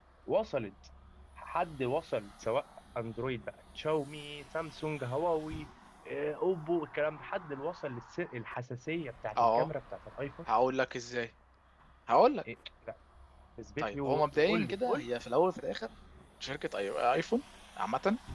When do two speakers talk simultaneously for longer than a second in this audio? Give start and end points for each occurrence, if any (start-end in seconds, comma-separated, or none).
13.8-15.1